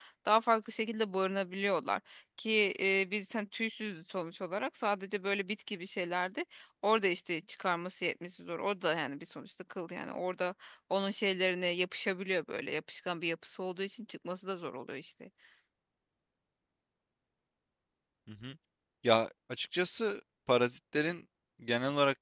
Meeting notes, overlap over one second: none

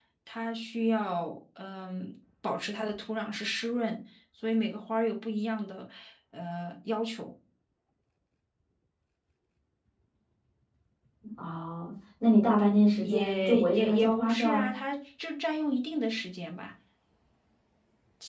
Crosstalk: present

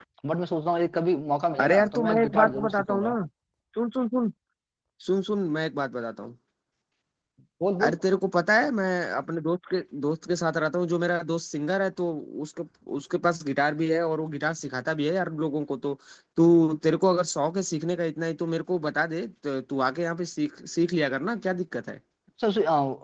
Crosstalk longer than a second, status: present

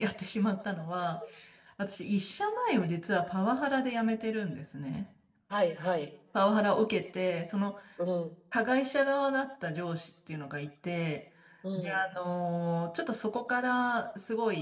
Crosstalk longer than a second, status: none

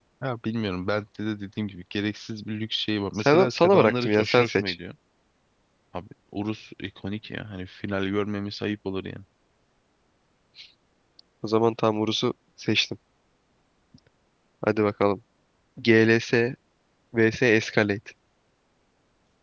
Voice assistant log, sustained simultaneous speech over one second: present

